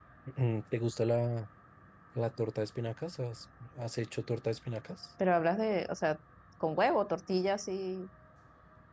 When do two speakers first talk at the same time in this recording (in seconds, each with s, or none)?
none